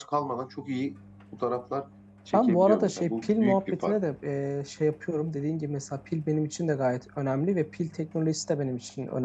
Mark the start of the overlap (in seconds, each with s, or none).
2.3 s